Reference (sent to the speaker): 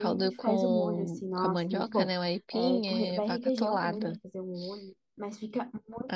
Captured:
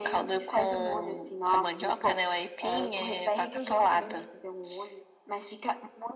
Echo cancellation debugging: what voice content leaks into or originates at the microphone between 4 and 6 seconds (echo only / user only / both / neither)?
echo only